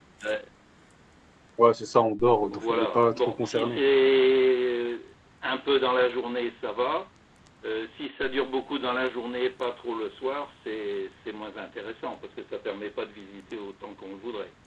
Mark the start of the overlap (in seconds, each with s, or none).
2.5 s